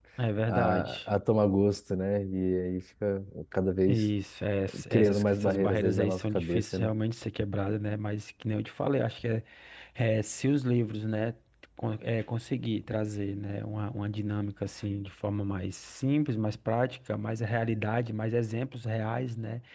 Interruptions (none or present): present